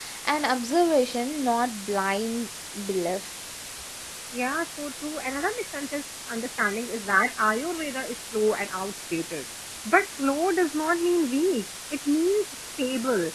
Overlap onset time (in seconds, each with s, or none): none